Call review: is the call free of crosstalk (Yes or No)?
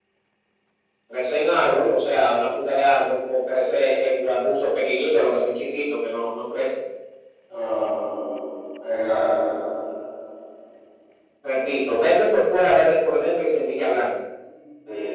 Yes